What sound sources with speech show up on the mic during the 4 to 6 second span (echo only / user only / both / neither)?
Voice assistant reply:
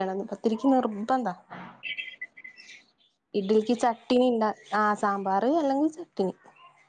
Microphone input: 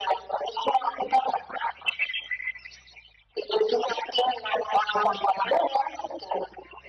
echo only